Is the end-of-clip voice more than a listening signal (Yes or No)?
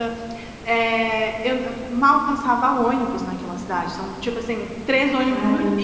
No